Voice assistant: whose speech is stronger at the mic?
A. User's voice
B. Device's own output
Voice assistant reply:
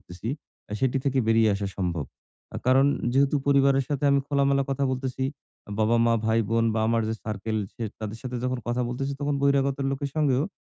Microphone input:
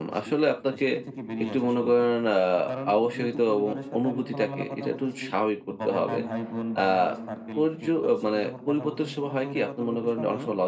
A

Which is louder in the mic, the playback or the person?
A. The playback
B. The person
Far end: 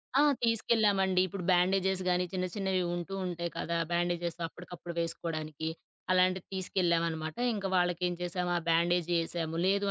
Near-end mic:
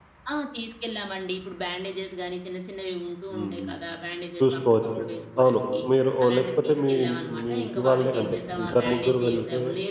B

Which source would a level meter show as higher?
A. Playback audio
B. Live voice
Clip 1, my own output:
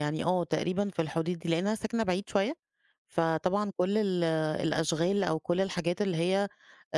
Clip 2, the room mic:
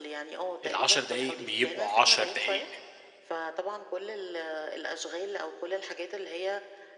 B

